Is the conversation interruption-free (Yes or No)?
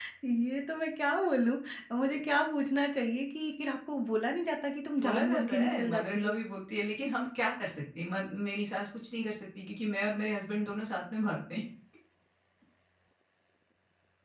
No